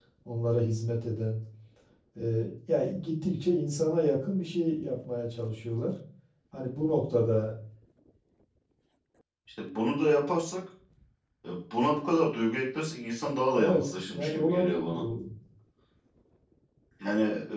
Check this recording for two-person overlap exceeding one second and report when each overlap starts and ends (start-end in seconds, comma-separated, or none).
13.6-15.0